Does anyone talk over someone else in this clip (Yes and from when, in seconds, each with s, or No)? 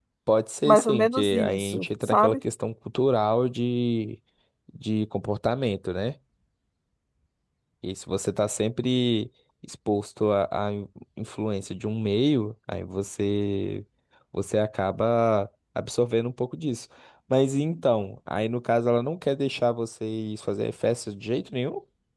Yes, from 0.6 s